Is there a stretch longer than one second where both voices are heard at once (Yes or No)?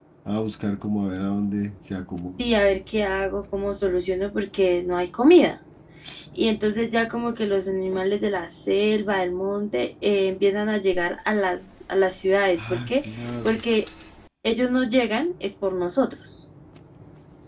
No